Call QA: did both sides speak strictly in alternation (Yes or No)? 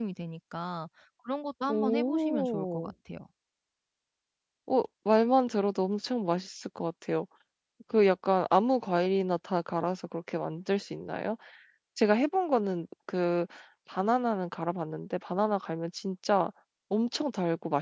No